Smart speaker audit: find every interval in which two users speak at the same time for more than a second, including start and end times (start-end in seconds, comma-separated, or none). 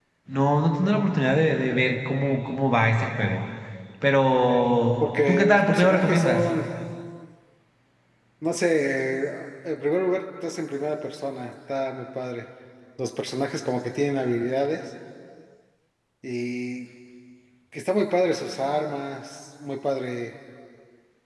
5.0-6.5